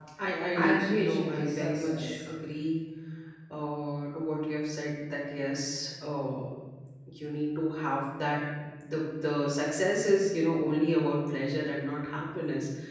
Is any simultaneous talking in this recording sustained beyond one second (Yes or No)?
Yes